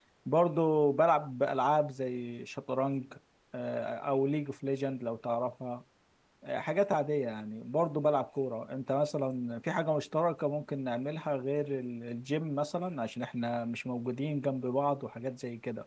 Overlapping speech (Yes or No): No